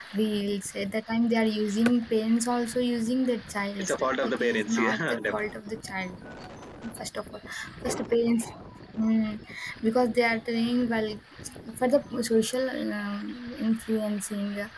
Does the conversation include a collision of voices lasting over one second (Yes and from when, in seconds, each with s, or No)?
Yes, from 3.8 s